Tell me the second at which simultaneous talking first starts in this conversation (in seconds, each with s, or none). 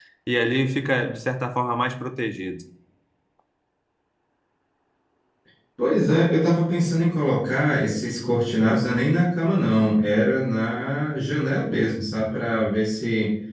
none